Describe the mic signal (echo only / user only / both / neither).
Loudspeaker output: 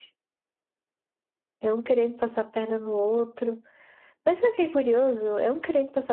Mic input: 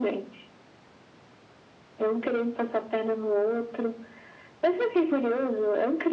echo only